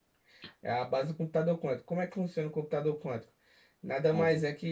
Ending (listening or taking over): listening